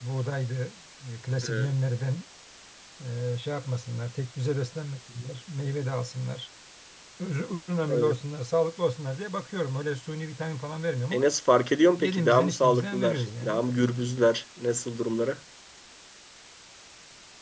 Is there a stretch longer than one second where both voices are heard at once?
Yes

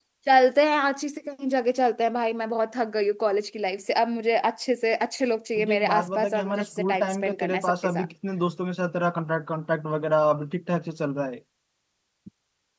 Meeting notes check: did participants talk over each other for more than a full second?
Yes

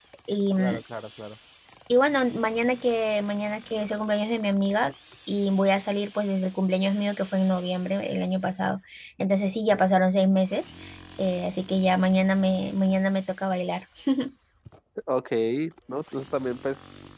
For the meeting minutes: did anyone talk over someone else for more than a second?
No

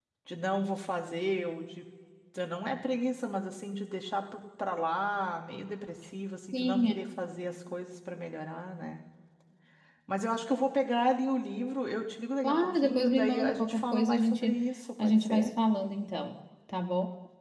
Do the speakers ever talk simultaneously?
Yes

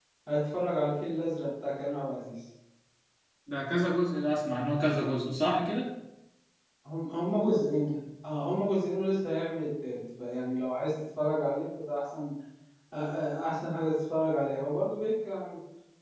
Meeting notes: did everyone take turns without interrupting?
Yes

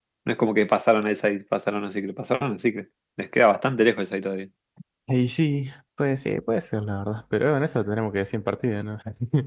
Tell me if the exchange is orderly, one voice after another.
Yes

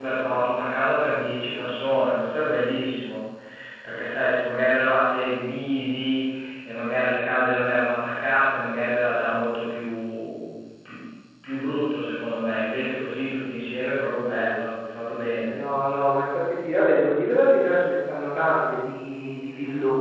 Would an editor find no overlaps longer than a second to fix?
Yes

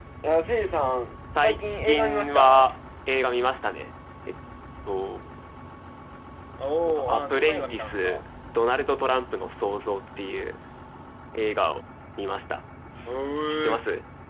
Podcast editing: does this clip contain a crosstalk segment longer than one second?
Yes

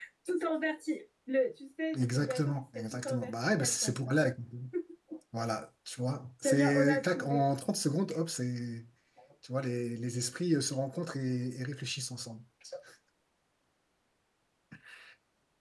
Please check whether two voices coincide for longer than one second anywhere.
Yes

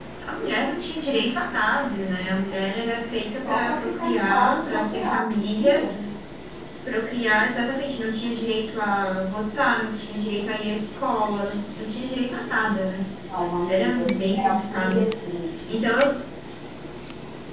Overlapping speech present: Yes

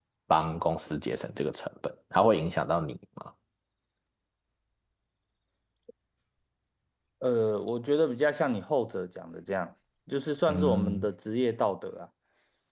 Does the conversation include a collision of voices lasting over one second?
No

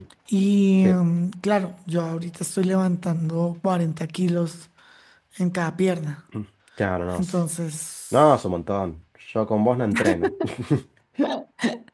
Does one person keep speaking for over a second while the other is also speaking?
No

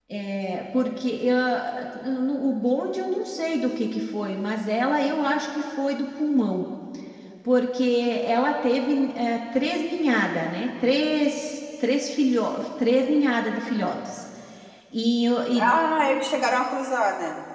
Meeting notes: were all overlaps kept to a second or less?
Yes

